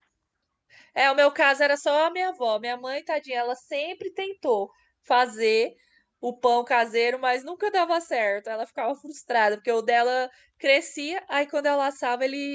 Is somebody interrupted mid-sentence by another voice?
No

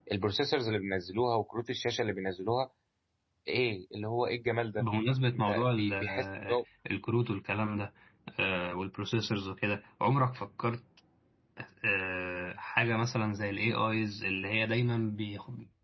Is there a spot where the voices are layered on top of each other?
Yes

